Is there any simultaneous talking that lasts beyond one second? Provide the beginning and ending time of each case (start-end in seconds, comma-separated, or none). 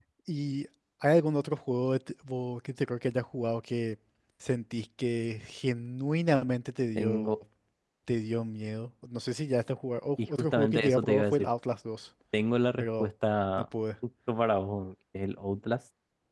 10.3-11.5